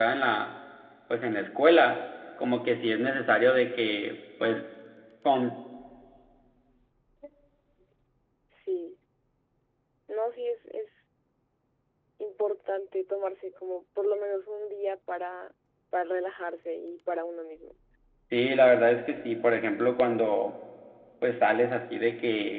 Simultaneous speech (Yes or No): No